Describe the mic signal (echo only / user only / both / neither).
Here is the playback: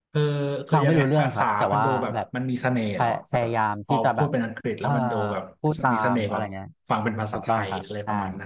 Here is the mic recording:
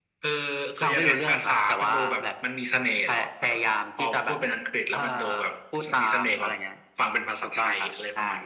echo only